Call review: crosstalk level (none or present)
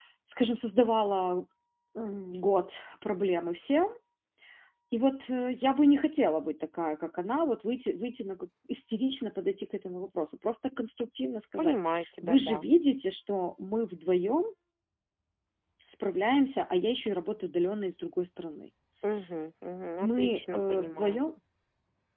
present